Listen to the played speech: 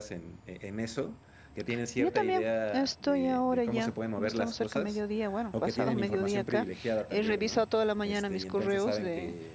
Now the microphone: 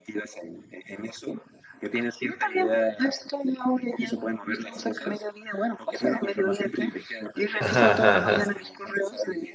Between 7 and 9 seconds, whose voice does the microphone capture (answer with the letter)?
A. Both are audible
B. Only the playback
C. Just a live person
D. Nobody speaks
A